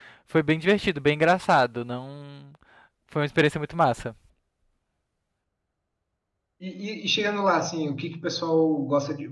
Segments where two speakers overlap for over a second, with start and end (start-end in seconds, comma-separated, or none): none